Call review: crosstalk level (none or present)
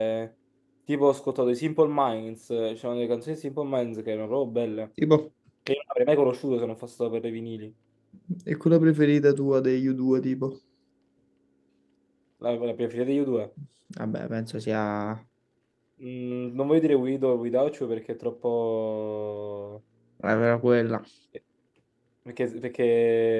none